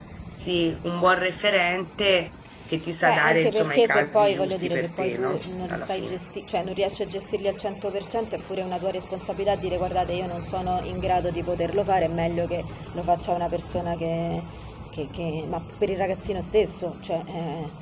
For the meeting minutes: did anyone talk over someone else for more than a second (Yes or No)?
Yes